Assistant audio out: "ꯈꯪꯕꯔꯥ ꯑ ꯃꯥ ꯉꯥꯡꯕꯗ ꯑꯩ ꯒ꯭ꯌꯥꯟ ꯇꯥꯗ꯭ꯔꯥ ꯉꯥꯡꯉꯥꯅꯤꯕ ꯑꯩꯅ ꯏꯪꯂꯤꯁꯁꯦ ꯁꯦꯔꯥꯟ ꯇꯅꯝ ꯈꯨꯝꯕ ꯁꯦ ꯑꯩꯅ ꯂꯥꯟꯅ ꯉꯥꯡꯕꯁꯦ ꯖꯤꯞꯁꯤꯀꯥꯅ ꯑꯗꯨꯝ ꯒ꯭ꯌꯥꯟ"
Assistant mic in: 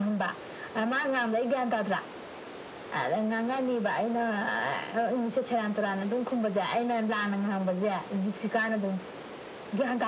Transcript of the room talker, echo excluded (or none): none